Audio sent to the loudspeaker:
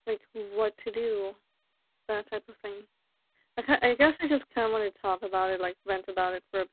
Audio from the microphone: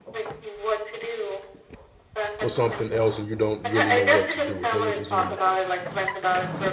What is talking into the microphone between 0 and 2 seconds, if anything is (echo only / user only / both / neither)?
echo only